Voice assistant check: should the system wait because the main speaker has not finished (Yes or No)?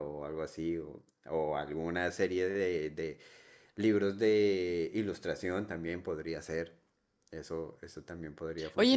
No